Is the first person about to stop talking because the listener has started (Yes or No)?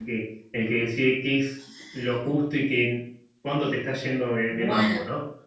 Yes